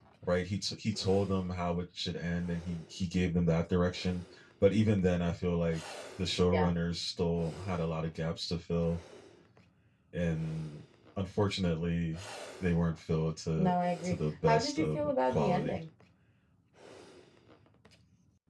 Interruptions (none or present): present